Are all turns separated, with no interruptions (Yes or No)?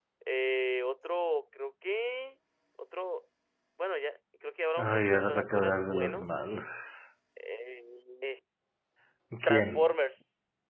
No